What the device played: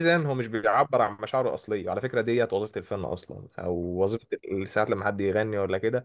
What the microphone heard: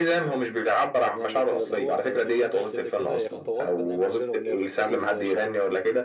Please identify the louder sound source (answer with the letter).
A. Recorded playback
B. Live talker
A